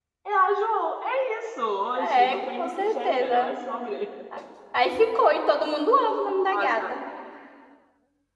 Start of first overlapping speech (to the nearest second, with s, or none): 2 s